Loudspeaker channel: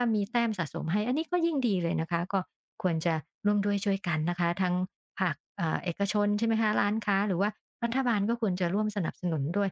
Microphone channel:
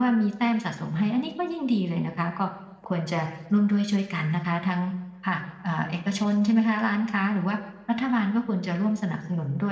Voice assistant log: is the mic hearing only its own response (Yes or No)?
Yes